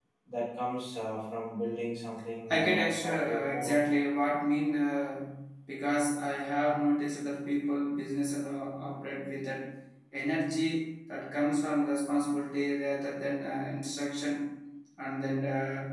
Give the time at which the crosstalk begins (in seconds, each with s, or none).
2.5 s